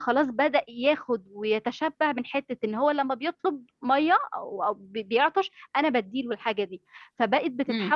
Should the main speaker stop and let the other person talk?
No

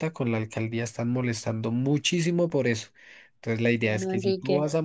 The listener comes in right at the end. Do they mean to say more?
No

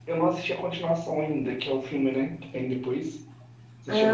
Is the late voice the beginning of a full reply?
Yes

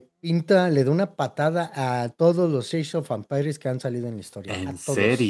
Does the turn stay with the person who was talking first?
Yes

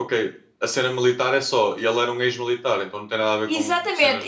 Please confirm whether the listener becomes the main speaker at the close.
Yes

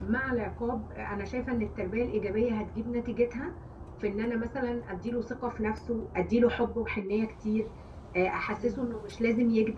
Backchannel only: Yes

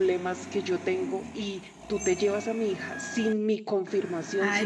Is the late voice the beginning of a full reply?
Yes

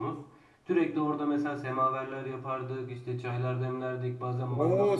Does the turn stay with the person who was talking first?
No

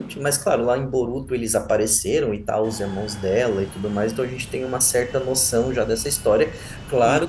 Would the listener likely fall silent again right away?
Yes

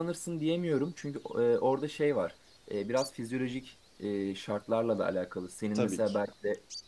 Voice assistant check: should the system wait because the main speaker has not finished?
Yes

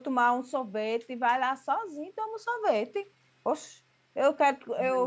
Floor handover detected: No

